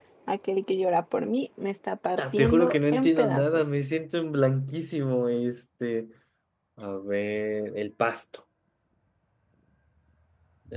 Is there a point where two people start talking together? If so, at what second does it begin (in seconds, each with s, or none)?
2.2 s